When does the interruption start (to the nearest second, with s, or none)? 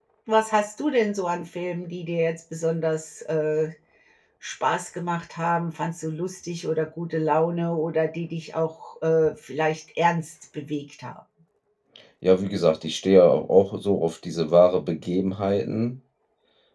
none